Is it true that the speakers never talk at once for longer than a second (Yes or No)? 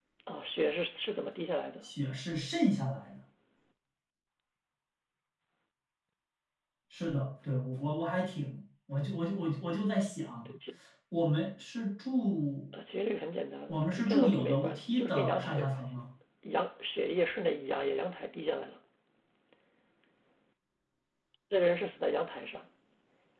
No